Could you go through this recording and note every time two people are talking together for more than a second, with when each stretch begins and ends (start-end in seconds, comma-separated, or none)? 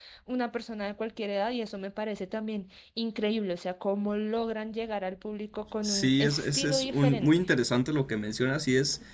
5.8-7.3